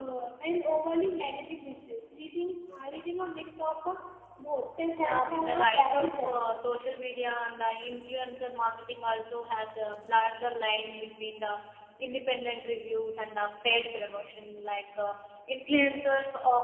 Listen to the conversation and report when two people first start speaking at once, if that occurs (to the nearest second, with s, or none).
5 s